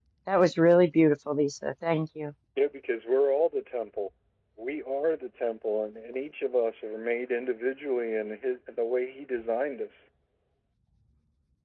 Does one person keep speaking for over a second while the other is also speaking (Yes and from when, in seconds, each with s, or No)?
No